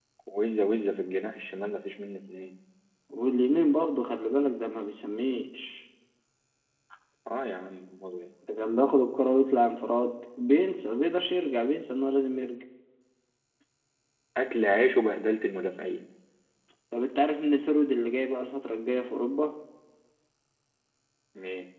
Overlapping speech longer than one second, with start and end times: none

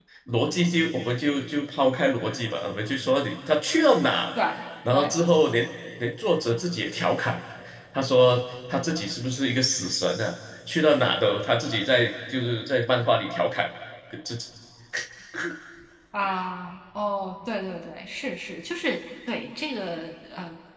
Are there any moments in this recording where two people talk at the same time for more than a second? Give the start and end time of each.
none

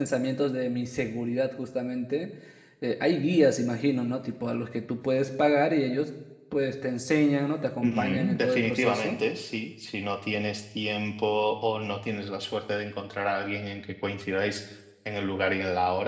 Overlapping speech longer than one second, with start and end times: 7.8-9.2

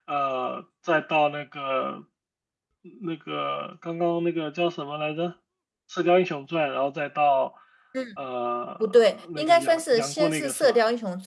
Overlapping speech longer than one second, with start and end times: 8.8-10.8

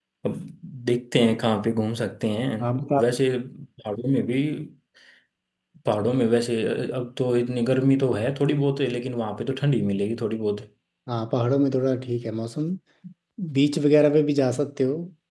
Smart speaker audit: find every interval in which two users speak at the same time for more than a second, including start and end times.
none

